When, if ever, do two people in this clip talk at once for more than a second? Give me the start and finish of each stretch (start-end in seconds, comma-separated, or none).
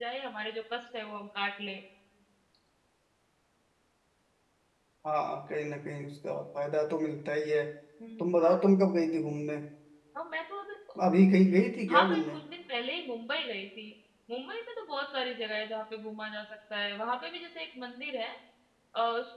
none